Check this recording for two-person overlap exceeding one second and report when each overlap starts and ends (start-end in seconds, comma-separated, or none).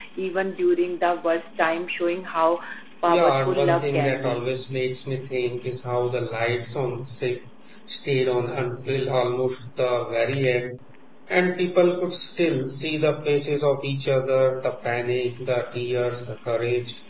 3.0-4.4